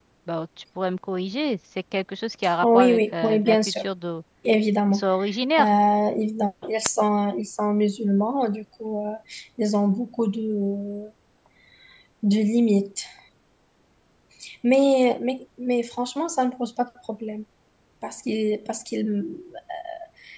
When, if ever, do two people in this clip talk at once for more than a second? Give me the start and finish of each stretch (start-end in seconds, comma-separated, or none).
2.6-3.8